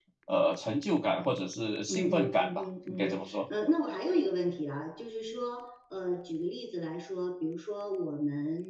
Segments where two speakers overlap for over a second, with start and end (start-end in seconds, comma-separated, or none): 1.9-3.4